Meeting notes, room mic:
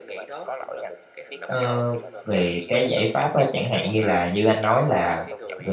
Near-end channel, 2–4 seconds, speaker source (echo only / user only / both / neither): both